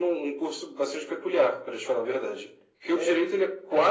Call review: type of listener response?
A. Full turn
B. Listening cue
B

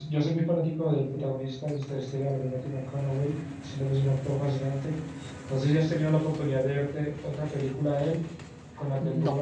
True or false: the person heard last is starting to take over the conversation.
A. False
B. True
A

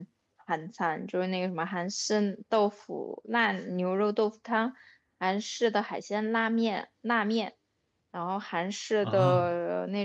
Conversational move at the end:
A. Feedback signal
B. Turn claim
A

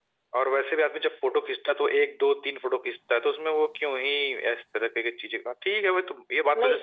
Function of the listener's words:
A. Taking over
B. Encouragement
B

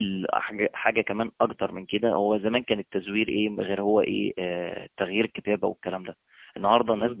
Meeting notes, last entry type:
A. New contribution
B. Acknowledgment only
B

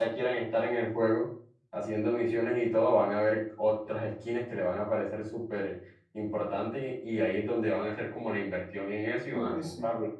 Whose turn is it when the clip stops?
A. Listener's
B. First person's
A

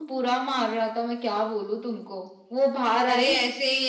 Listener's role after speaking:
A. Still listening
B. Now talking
B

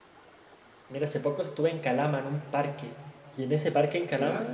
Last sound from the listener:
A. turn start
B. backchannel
B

